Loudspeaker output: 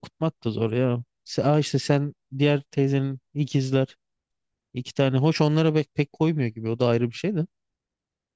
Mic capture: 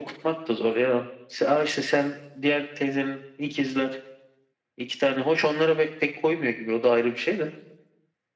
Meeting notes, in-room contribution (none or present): none